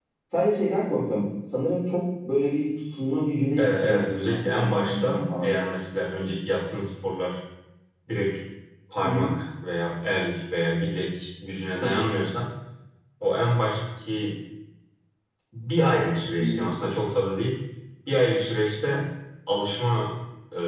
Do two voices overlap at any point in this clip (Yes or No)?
Yes